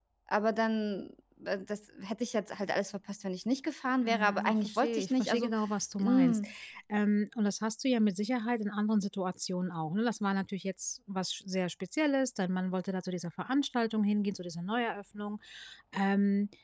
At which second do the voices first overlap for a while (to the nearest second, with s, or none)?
4 s